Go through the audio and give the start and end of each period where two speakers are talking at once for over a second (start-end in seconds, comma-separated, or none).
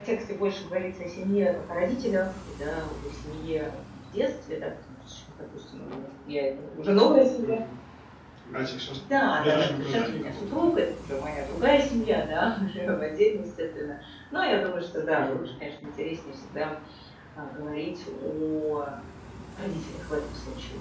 9.1-10.7